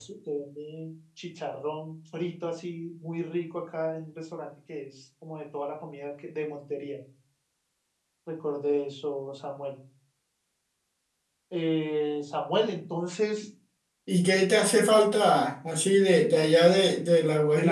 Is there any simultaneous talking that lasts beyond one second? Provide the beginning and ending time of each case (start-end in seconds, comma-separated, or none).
none